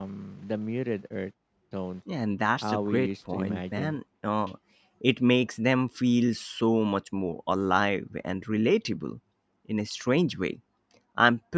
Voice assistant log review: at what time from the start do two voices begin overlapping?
3 s

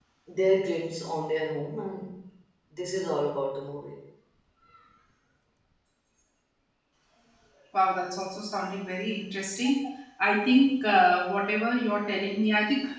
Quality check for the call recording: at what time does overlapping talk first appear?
none

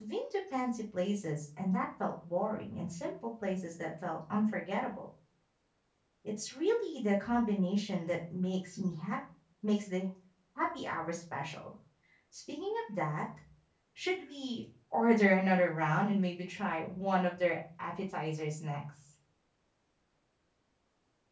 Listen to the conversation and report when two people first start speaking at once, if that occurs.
none

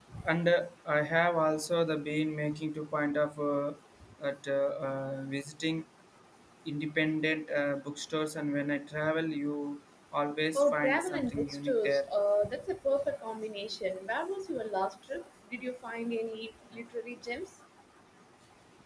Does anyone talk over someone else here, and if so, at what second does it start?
11 s

